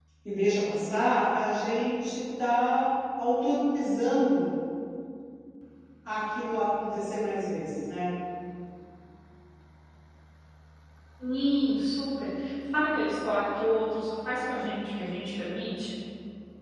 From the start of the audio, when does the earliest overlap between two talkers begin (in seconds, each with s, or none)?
none